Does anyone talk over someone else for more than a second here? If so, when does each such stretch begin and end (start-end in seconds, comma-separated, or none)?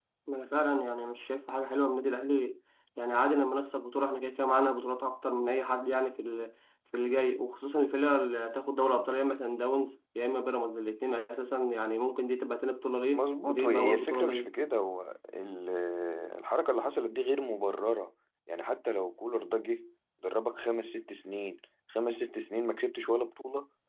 13.1-14.5